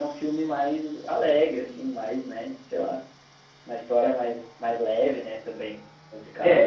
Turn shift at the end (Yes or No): Yes